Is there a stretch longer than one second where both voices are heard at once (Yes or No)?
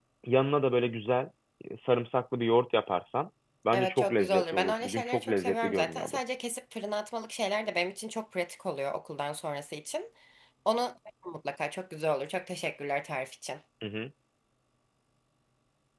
Yes